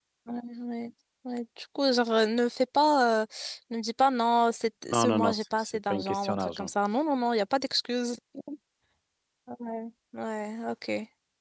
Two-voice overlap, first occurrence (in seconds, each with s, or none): 4.9 s